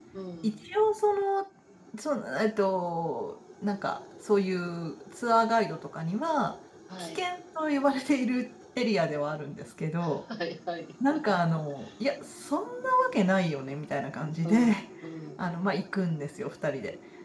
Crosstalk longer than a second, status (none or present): none